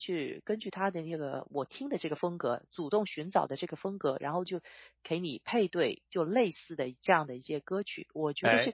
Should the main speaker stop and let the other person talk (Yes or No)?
Yes